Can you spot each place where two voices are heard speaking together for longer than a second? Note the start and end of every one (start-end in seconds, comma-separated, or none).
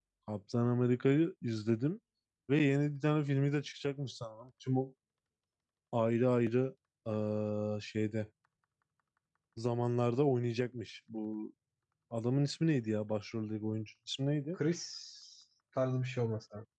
none